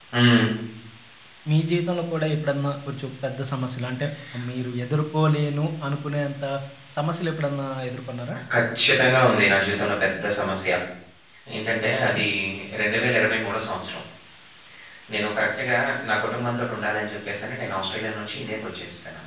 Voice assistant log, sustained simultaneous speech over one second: none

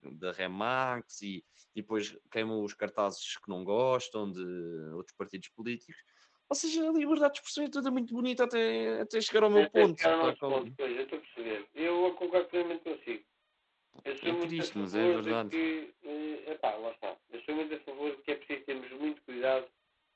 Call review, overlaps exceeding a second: present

